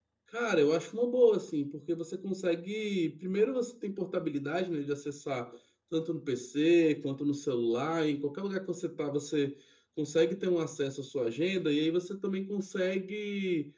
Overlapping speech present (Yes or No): No